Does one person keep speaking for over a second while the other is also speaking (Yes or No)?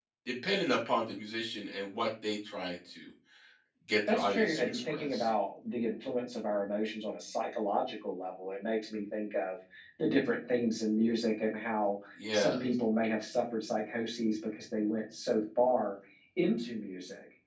Yes